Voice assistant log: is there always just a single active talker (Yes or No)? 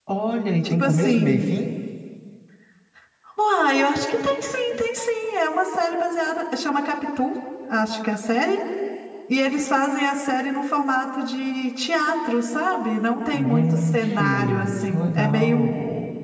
No